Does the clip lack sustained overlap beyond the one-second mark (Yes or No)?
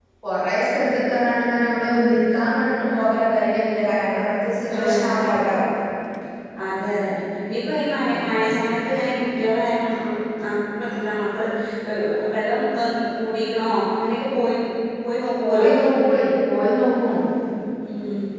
Yes